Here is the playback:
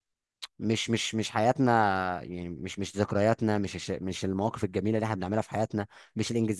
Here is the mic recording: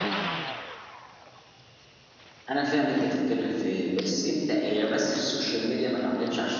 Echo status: none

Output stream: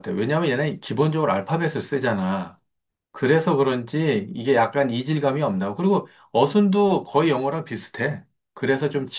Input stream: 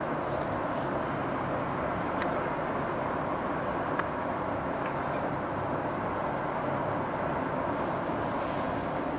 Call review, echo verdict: none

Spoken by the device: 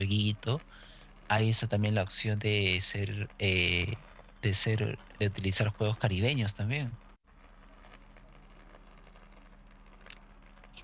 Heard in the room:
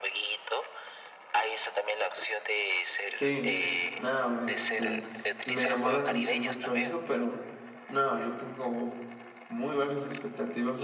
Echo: present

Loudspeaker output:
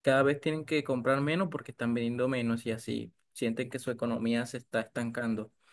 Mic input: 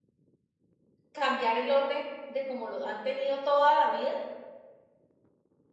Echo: none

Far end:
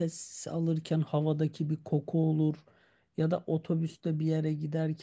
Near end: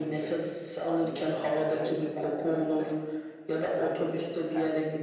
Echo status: present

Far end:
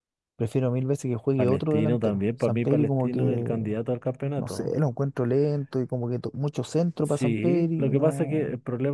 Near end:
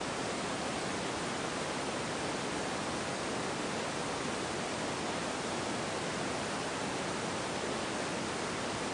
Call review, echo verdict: none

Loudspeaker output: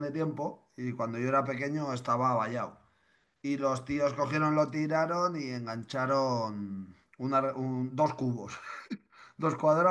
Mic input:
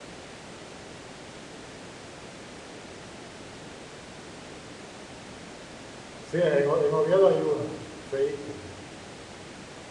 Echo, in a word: none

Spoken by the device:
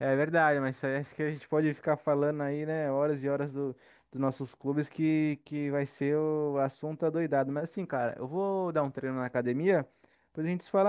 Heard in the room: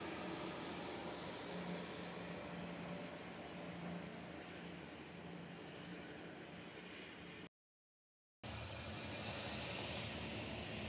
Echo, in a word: none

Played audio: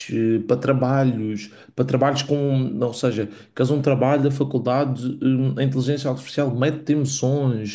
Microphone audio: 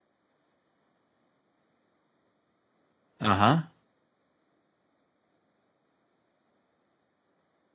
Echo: none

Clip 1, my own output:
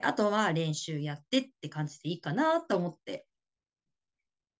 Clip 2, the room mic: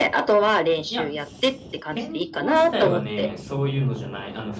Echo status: present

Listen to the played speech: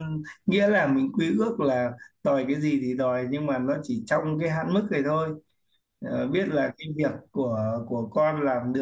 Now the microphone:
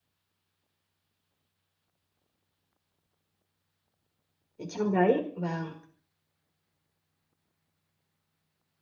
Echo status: none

